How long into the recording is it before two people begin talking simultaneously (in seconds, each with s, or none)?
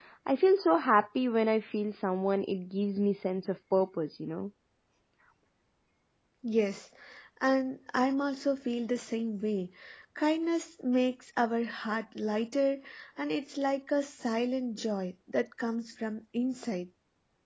none